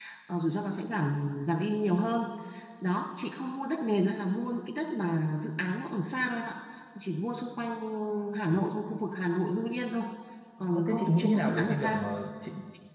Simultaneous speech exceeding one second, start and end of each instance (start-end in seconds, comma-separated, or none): 10.8-12.1